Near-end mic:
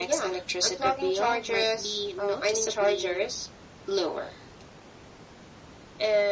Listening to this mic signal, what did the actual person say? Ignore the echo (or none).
none